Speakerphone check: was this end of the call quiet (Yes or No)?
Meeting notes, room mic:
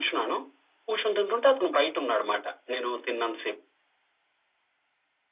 Yes